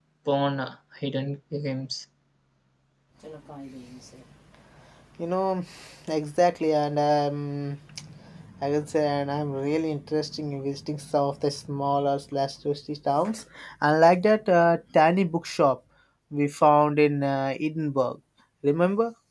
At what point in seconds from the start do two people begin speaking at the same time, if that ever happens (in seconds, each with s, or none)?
none